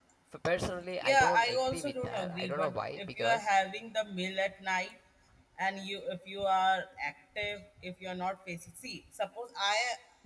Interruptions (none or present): present